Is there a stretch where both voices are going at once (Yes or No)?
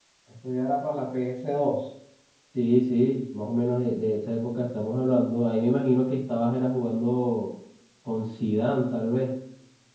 No